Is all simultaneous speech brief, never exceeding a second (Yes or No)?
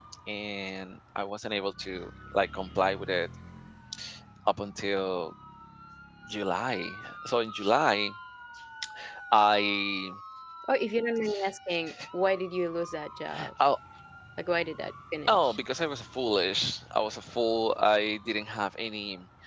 Yes